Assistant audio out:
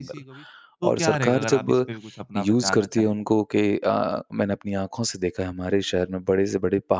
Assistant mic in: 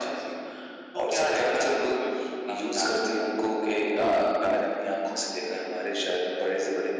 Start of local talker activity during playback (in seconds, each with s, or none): 3.9 s